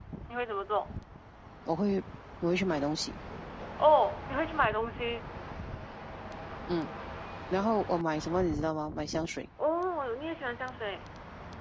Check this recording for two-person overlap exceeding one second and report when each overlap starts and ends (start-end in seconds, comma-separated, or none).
none